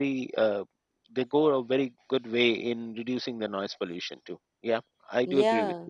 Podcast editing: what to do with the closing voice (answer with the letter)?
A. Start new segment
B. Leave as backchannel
A